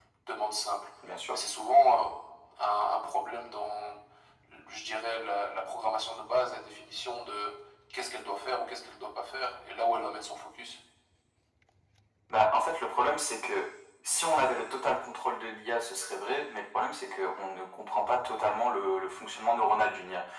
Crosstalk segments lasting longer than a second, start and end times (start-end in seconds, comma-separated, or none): none